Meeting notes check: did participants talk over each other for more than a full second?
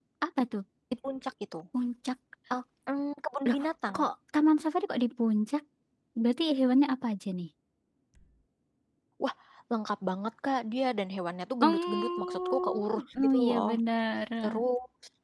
Yes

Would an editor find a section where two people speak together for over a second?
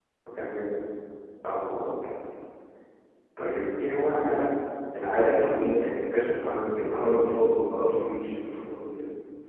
Yes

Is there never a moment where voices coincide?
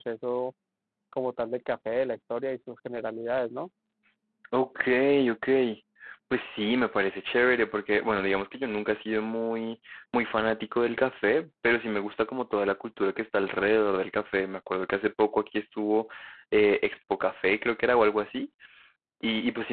Yes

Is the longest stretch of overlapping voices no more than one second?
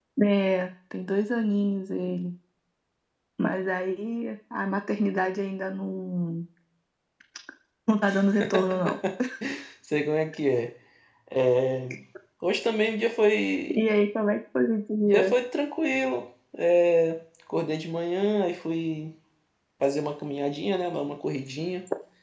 Yes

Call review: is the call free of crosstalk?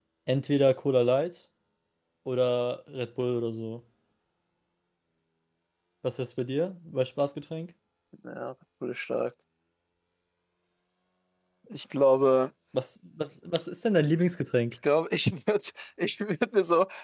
Yes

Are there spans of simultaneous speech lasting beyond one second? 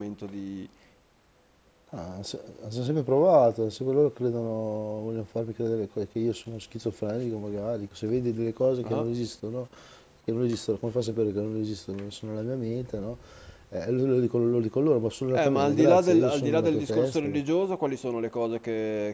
Yes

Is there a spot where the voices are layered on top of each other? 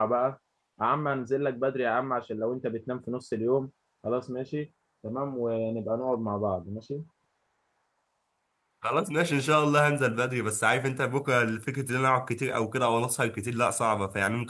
No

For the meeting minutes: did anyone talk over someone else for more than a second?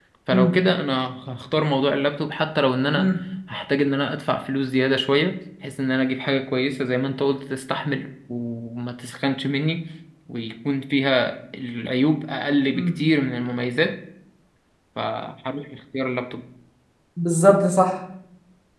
No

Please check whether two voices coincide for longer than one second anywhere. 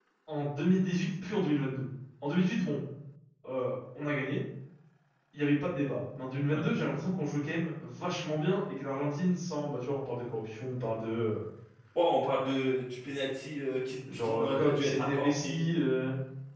Yes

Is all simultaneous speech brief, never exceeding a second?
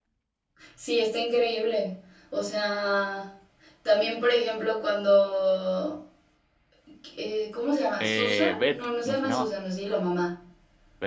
No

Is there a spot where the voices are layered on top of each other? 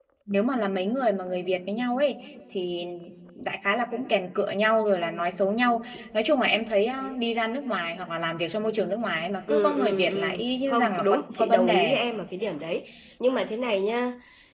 Yes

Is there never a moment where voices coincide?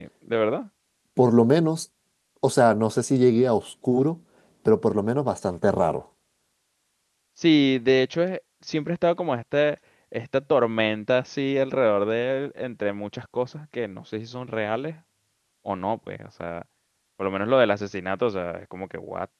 Yes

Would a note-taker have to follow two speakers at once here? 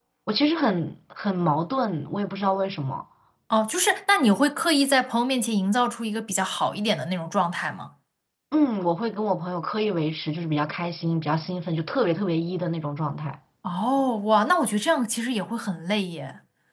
No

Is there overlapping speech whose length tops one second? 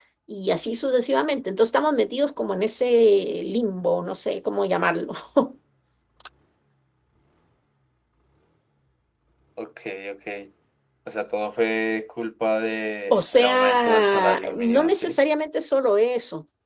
Yes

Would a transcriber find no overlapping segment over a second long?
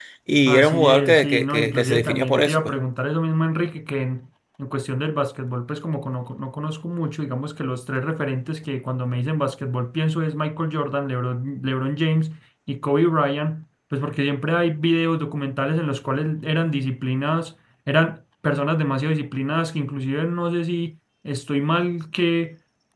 No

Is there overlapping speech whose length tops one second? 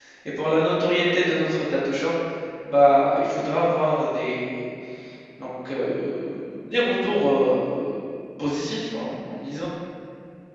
No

